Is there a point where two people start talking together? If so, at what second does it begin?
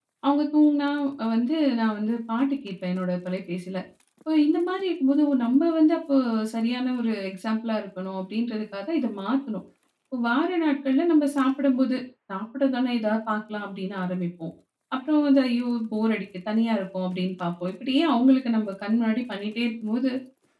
none

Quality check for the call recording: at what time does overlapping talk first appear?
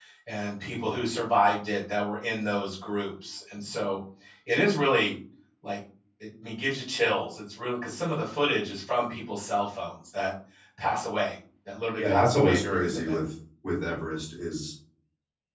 12.0 s

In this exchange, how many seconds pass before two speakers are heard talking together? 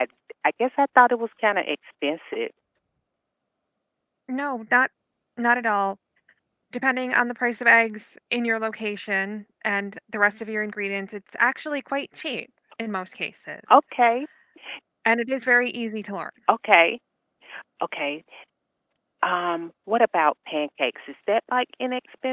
none

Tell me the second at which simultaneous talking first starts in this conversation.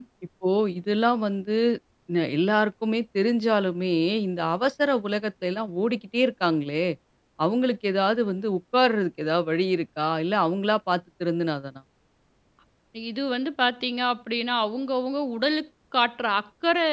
none

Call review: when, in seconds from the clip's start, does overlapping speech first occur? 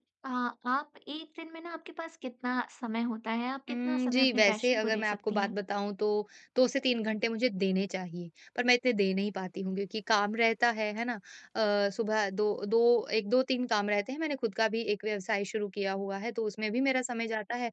3.7 s

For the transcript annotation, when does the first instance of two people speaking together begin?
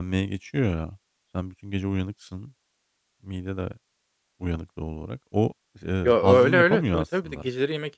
6.0 s

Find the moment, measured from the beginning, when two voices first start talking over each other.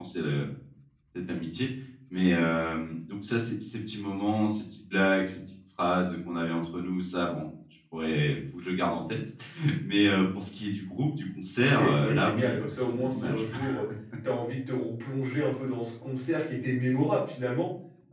11.6 s

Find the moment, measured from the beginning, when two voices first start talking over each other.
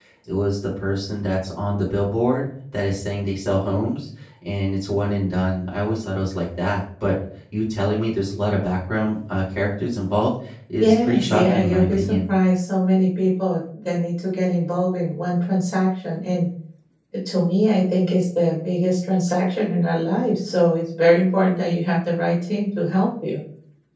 10.8 s

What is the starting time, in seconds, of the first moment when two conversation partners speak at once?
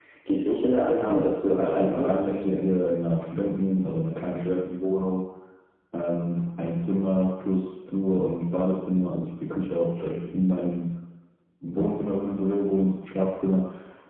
0.9 s

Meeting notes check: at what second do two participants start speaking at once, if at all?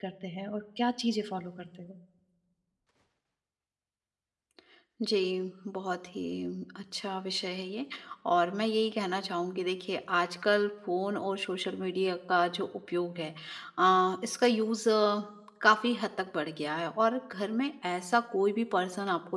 none

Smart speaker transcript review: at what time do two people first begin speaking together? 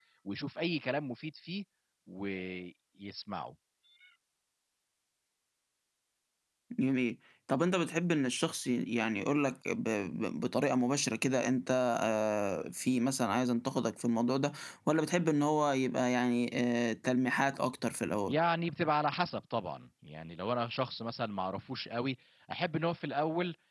none

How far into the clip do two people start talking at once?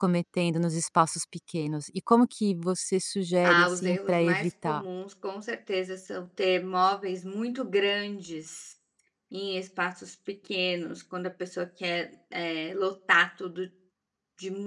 3.4 s

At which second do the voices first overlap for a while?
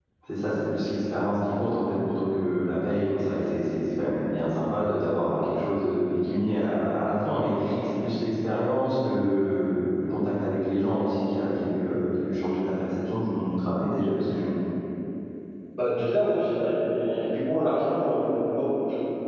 none

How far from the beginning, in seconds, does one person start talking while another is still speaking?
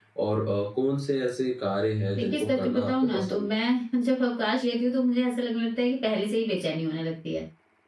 2.2 s

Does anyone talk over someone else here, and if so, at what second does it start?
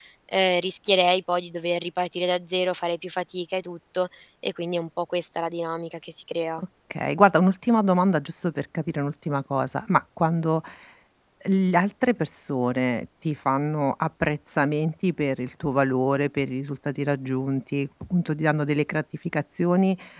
none

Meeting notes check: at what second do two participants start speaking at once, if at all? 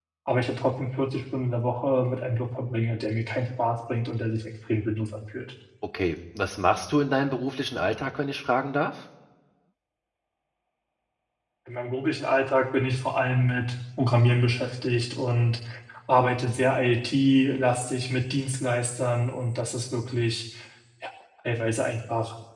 none

